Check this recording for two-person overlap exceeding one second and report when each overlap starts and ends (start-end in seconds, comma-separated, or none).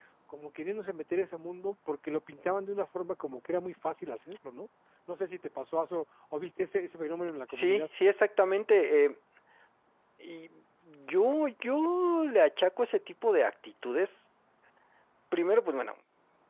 none